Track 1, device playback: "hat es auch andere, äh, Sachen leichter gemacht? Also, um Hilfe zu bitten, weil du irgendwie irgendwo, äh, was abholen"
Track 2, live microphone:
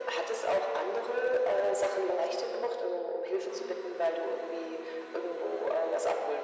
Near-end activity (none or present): none